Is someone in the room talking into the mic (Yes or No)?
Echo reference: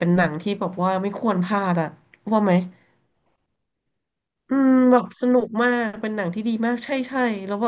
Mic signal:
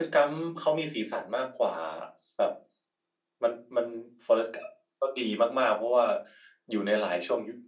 Yes